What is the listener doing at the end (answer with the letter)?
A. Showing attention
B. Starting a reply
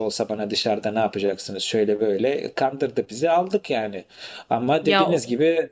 A